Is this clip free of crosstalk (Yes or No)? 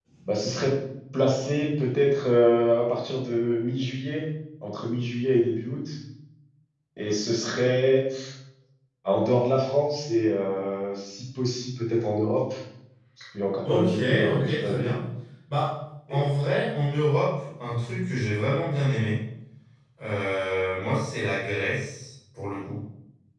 No